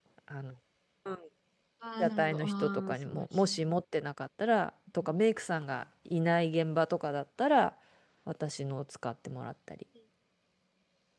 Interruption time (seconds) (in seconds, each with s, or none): 2.0 s